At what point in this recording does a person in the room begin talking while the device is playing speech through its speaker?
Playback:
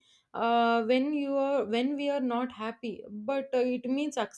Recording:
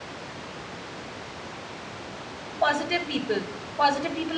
2.6 s

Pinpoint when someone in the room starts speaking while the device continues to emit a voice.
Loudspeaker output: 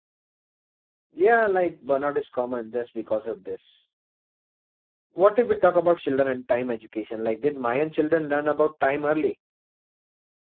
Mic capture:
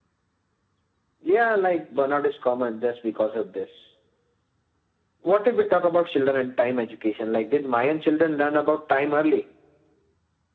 none

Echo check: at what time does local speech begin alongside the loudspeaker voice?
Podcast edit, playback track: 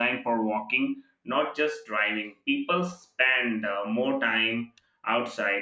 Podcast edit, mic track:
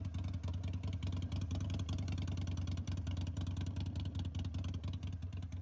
none

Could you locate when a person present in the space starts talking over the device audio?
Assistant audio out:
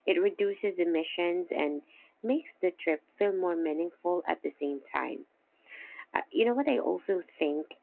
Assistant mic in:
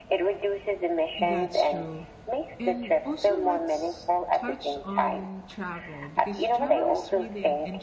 1.2 s

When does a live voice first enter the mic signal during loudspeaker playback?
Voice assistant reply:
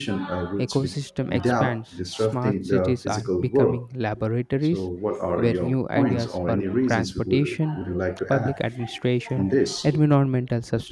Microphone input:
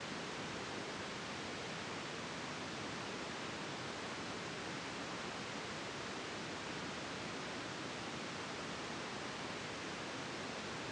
none

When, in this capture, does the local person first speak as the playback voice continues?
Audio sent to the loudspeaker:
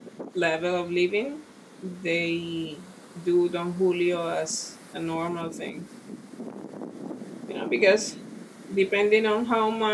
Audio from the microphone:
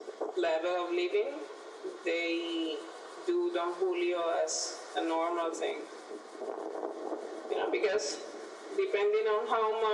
none

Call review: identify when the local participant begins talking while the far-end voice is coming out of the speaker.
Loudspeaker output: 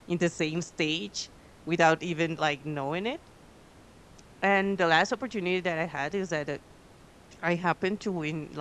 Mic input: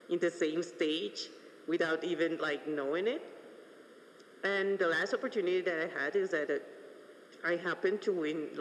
none

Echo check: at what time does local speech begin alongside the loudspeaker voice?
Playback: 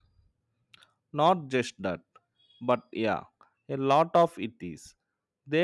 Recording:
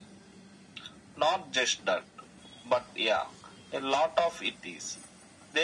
none

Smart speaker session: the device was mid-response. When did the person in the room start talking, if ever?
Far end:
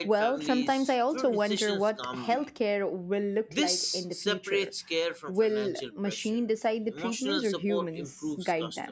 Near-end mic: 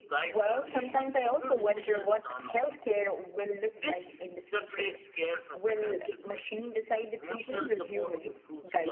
none

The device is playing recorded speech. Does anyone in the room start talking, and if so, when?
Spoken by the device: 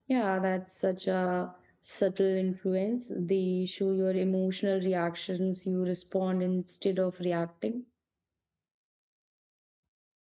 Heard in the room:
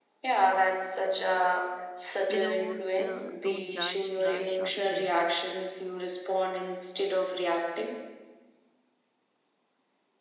2.3 s

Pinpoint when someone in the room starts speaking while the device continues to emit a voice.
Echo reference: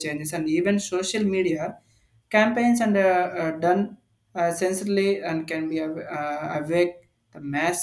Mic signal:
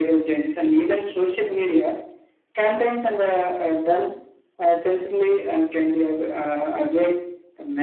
none

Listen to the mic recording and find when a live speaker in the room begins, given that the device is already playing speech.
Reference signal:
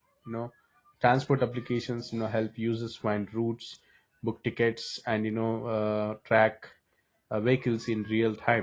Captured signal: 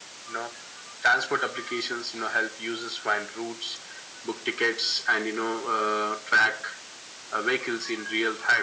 none

